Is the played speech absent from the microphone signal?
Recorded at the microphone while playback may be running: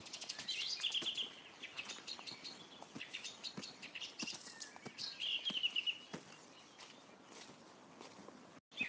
Yes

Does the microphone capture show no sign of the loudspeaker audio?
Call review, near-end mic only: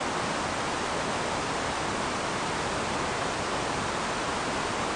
Yes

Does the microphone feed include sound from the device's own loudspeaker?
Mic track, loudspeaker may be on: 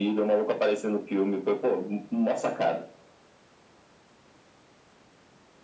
Yes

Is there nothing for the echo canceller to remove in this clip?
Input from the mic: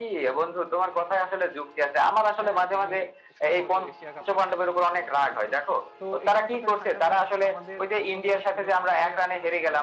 No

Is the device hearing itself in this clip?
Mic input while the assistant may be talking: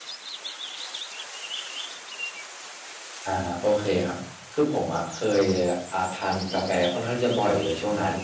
No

